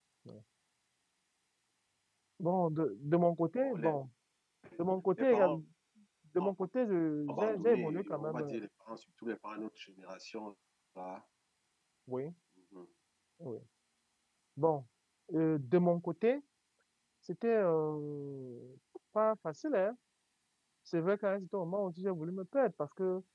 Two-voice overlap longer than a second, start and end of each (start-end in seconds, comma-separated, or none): 7.3-8.5